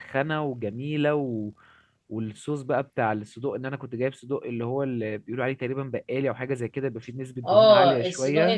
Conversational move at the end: taking over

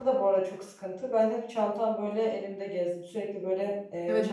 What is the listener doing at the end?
taking over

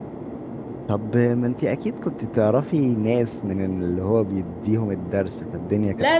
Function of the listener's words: taking over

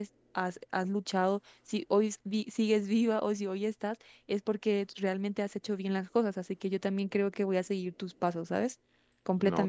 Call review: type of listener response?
taking over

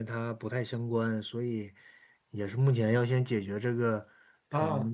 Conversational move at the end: listening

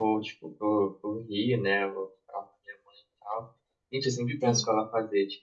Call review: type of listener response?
listening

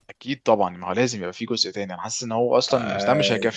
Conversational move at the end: listening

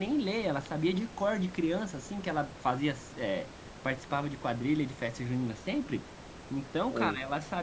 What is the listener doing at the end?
listening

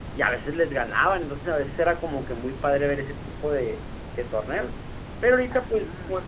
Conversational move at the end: listening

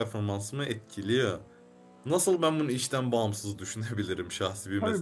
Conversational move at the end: taking over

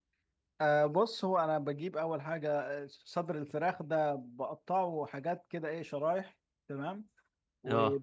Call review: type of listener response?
listening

